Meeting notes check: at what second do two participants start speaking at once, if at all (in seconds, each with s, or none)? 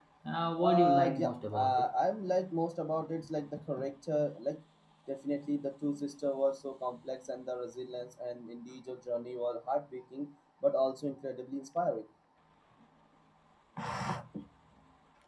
0.6 s